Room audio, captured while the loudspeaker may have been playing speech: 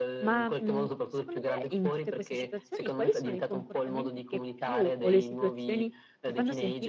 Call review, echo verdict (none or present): present